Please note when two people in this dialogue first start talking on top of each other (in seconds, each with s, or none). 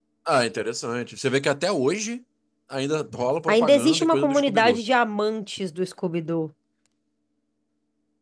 3.5 s